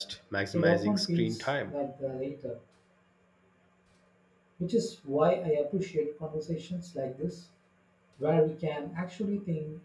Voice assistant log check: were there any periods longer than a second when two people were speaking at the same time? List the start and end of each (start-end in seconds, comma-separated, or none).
0.5-1.7